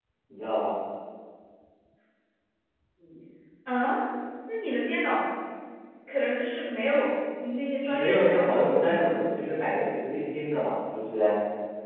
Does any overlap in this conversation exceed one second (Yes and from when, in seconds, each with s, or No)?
Yes, from 7.9 s